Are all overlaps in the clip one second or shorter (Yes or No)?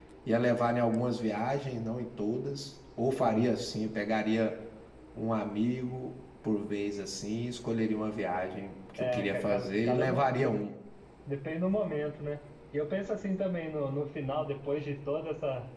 No